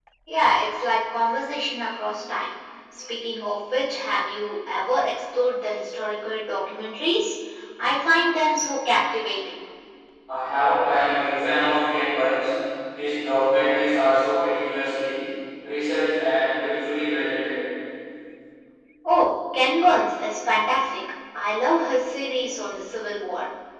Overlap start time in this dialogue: none

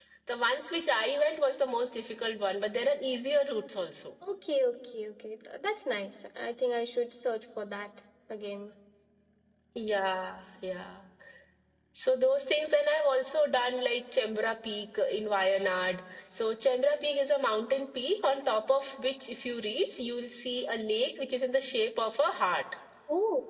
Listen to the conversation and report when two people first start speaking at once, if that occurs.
none

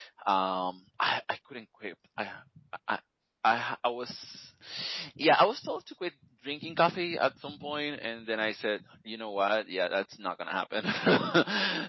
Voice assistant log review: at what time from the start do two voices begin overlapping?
none

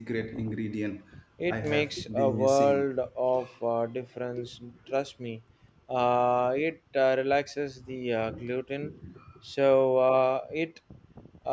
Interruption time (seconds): 1.5 s

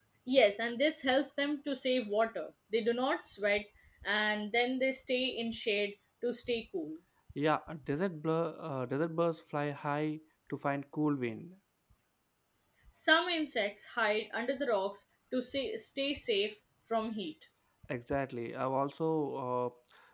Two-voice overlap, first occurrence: none

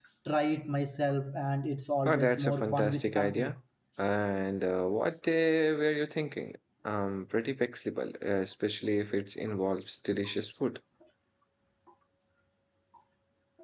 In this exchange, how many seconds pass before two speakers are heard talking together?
2.0 s

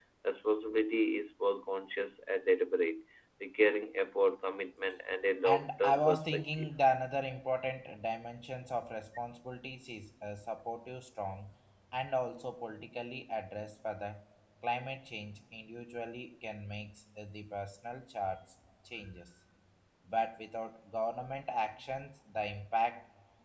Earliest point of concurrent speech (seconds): 5.4 s

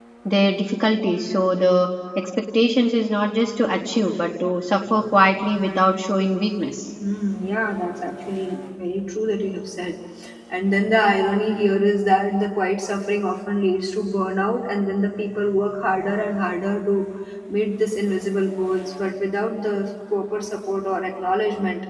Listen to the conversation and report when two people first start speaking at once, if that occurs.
none

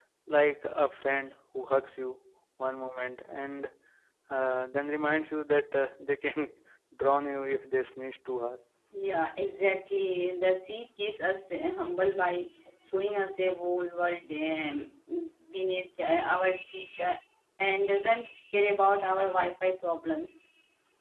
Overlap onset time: none

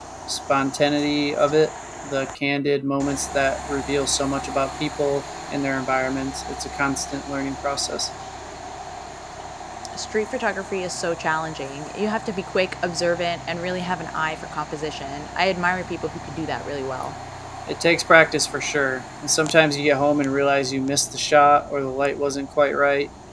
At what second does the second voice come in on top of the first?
none

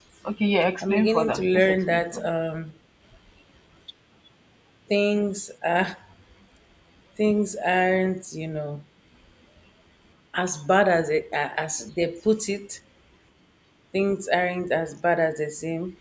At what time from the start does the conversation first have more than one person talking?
0.8 s

